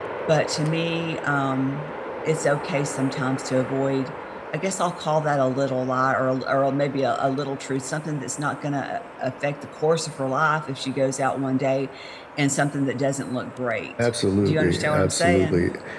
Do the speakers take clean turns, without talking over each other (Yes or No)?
No